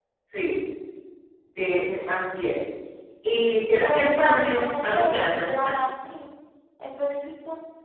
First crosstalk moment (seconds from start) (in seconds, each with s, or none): 3.8 s